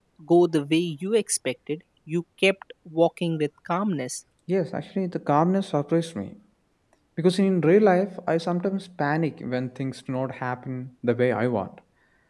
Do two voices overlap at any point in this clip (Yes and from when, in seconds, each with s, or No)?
No